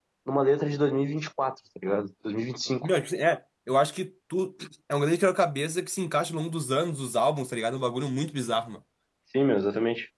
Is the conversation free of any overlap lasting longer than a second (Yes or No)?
Yes